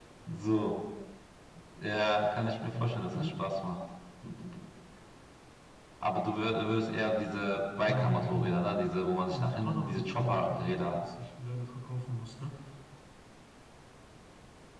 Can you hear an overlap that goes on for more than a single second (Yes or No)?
Yes